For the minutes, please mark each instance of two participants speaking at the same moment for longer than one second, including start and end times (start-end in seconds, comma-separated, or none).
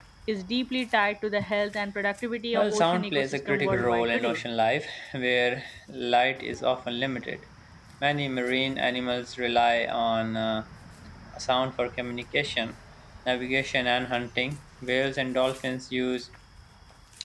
2.5-4.4